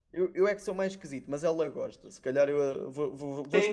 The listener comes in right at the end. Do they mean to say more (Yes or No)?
Yes